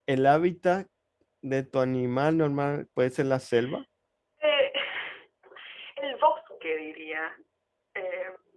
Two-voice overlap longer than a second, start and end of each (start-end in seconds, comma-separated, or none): none